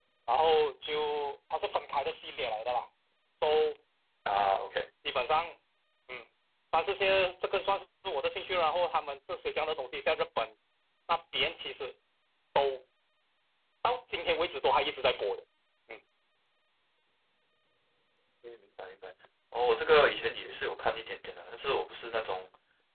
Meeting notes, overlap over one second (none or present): none